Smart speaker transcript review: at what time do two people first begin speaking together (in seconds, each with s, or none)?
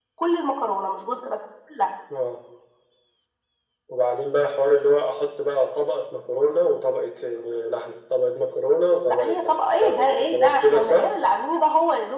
9.1 s